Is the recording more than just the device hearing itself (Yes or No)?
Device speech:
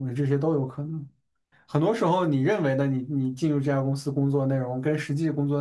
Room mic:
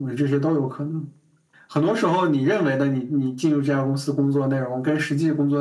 No